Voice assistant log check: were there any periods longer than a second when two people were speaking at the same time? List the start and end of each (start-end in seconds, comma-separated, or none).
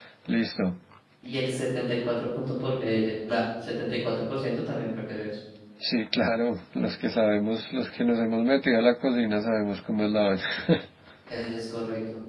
none